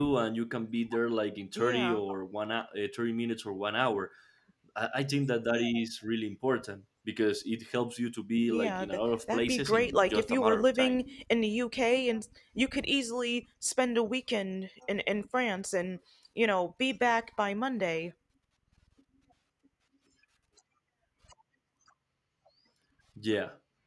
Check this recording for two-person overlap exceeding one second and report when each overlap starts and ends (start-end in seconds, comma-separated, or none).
8.4-11.0